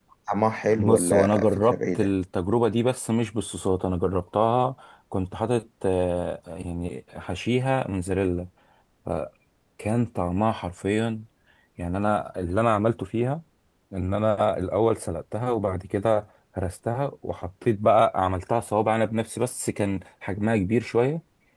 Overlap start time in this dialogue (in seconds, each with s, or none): 0.8 s